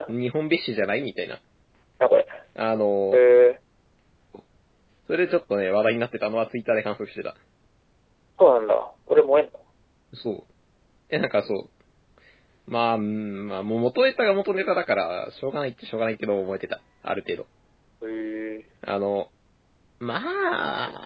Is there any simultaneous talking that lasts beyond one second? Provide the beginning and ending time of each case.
none

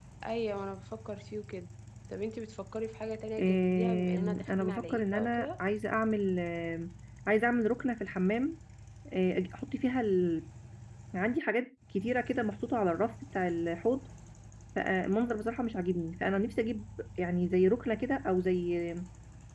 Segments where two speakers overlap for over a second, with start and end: 3.4-5.5

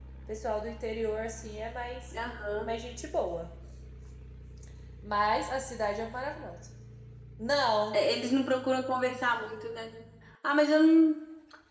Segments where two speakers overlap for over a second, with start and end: none

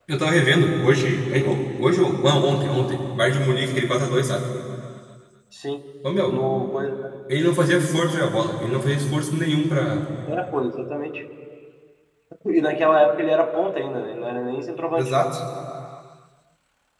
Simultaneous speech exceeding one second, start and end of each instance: none

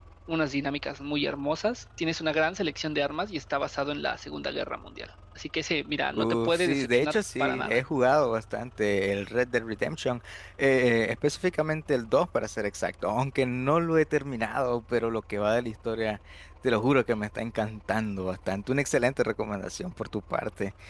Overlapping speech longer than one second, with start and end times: 6.1-7.8

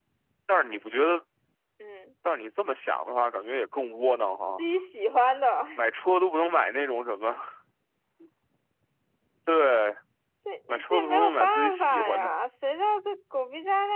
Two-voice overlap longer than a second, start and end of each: 10.7-12.3

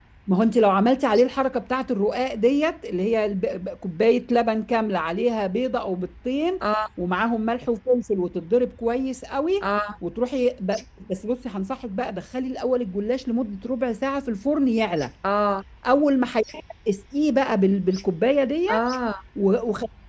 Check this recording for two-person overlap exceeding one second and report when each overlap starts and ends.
none

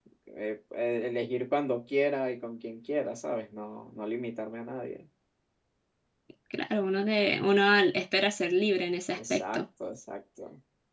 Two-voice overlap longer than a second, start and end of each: none

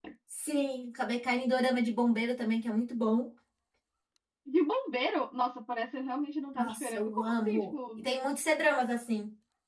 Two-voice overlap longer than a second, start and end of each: 6.5-8.1

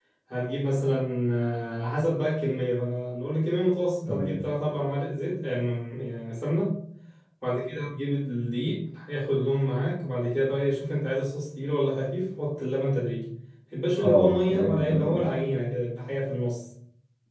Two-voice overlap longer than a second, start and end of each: 14.0-15.2

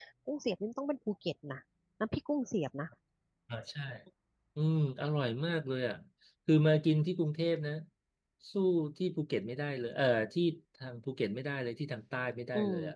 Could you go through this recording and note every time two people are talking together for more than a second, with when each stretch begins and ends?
none

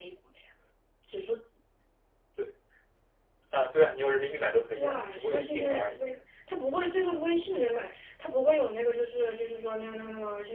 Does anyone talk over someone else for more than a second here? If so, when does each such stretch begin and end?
4.7-6.0

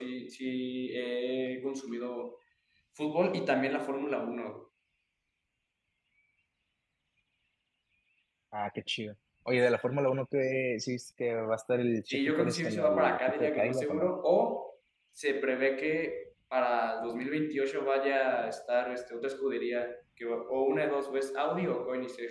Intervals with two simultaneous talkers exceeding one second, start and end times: 12.1-14.1

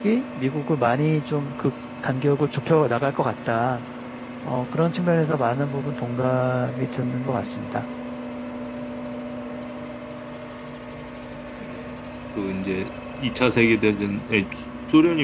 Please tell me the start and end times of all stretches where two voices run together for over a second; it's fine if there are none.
none

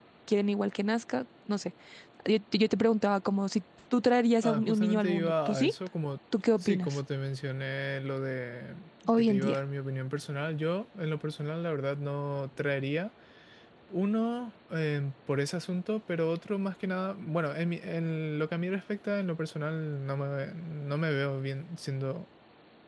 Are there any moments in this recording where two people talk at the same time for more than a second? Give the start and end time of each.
4.4-5.7

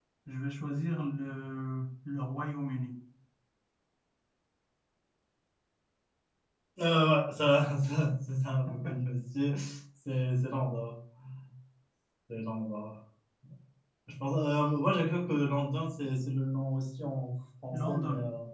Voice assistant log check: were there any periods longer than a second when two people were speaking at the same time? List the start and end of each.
none

